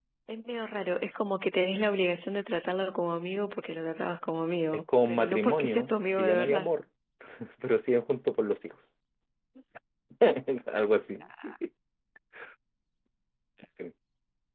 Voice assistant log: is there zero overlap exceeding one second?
No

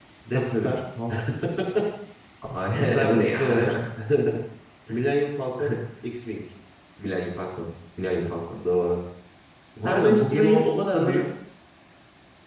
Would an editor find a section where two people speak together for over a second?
Yes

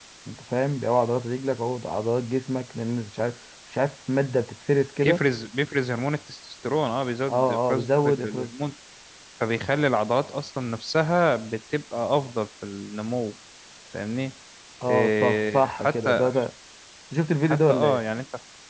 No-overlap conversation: No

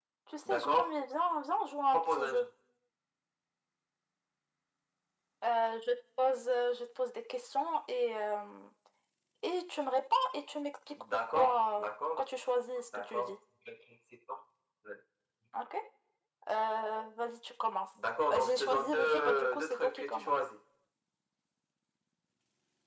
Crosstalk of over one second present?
Yes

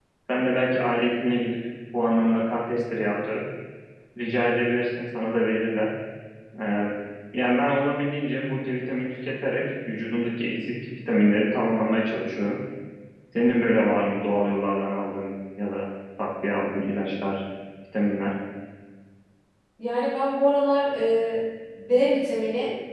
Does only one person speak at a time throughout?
Yes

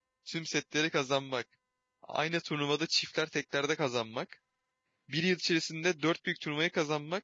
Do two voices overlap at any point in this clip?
No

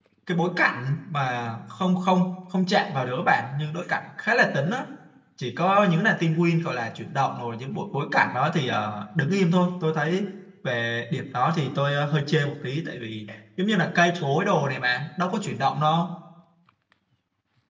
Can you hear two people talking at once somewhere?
No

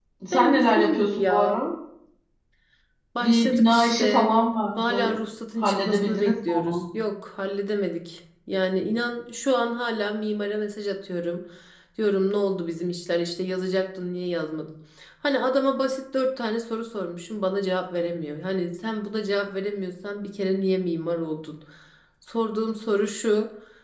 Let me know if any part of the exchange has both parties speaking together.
Yes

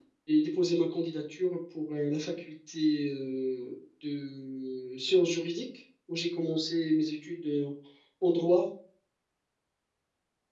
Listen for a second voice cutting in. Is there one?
No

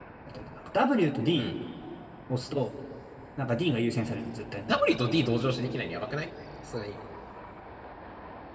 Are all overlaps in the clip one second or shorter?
Yes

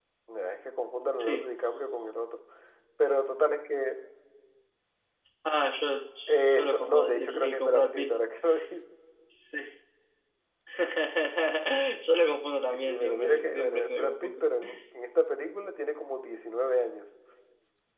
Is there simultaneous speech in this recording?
Yes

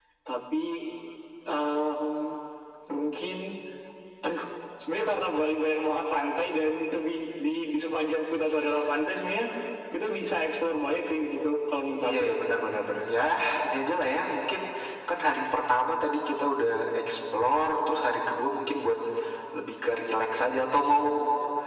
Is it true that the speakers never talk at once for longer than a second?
Yes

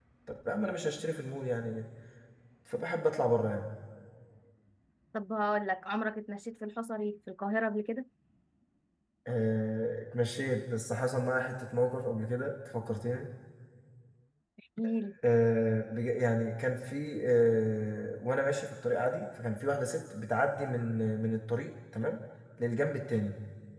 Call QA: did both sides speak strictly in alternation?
Yes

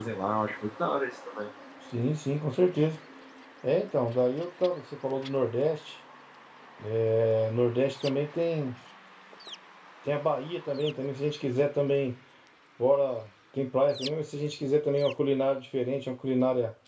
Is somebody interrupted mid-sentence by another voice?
No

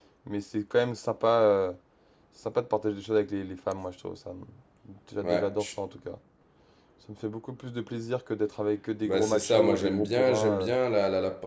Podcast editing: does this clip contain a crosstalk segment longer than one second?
Yes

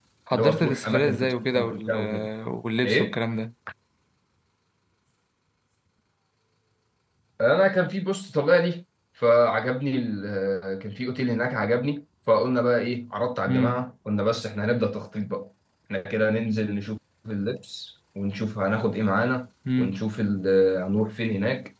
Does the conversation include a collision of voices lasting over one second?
Yes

